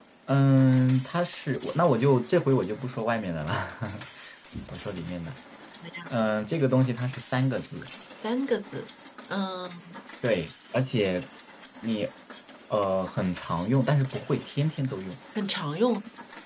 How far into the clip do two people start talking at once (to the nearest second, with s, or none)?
none